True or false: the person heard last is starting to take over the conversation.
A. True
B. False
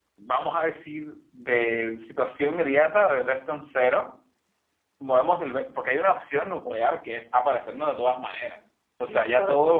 A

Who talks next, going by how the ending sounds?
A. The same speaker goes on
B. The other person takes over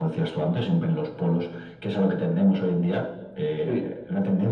A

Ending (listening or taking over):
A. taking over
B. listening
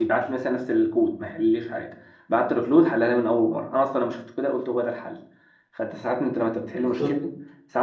B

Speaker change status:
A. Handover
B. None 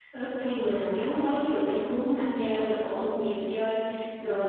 B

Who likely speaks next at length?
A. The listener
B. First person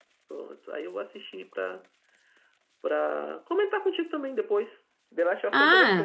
A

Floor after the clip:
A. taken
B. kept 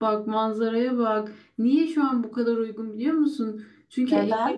B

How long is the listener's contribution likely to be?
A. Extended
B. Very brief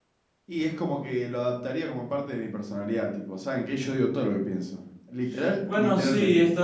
A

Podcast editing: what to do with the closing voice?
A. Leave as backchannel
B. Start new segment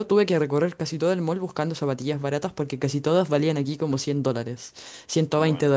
A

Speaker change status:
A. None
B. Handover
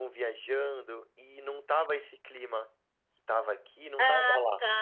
B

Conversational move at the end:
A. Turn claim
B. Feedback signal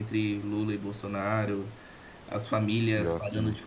B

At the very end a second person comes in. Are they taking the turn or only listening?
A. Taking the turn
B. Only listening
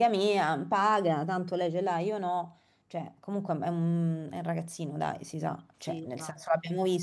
B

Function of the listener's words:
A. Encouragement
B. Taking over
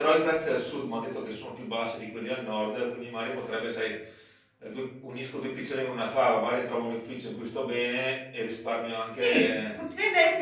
B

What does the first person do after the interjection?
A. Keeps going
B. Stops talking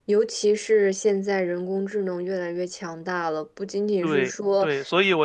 B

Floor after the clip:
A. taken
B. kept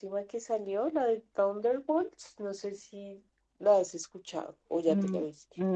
A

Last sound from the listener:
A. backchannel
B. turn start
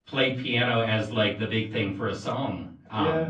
B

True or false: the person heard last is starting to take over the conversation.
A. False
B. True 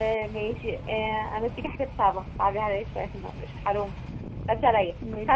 A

